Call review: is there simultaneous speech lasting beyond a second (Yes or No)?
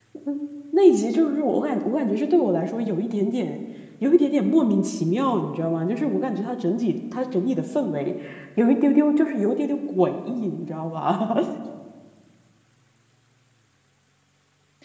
No